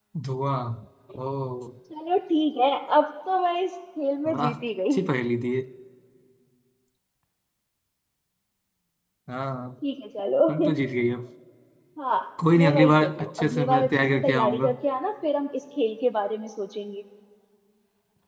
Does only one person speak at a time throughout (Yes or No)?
No